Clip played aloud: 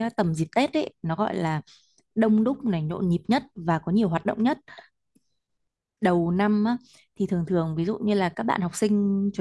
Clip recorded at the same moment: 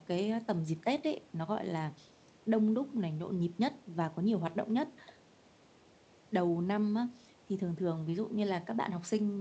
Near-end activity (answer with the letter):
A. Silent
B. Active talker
A